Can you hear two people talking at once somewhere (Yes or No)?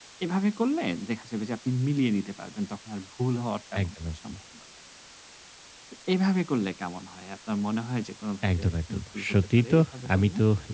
Yes